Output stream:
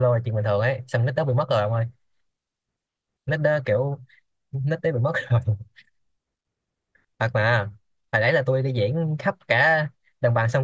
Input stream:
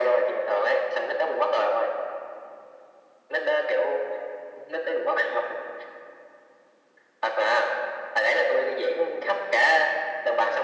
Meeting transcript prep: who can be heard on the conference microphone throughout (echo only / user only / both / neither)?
echo only